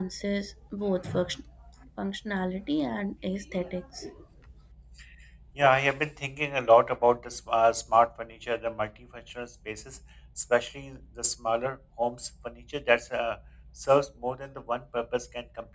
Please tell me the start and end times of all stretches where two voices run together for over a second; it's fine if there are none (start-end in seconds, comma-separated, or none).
none